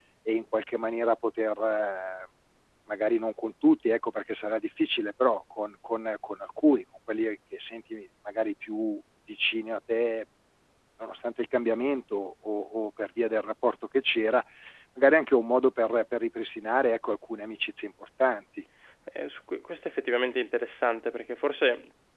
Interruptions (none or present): none